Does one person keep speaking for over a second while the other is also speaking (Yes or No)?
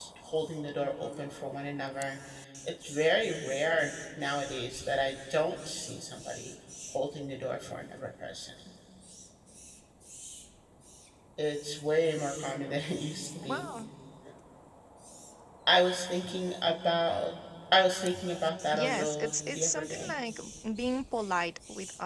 Yes